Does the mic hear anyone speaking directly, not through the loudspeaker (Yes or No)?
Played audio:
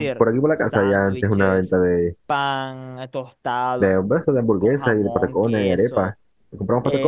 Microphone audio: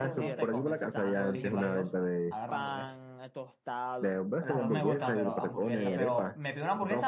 Yes